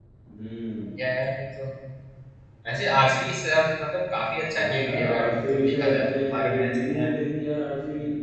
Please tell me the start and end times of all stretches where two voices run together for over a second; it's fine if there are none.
4.5-7.0

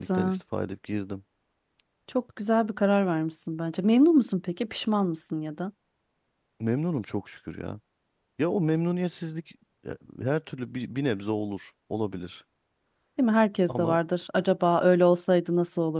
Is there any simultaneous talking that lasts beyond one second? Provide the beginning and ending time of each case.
none

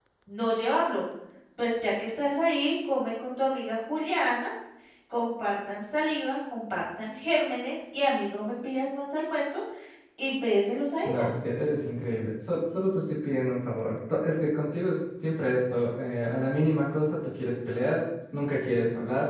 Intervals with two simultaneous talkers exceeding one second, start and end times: none

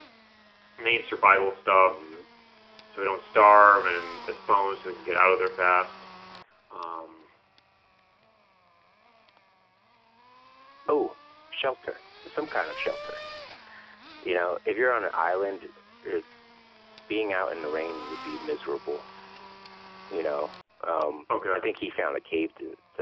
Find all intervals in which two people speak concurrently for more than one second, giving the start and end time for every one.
none

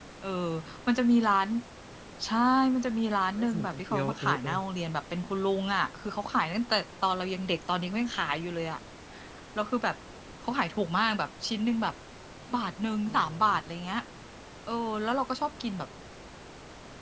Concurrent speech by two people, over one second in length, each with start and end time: 3.4-4.6

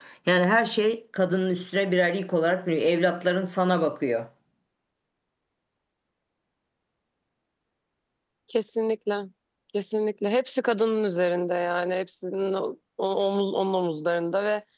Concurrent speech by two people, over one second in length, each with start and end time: none

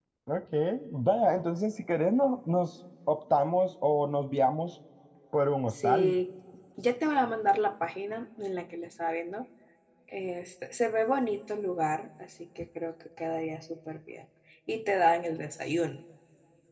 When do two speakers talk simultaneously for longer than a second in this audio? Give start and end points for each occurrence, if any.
none

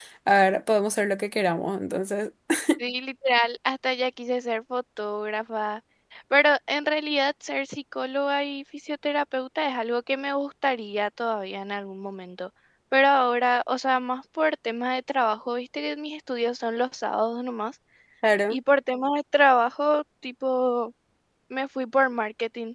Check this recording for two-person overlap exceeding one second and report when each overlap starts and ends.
none

